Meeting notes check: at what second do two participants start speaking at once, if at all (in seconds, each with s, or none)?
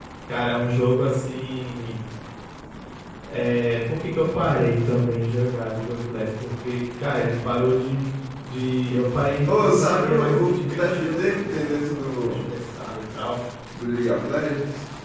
9.4 s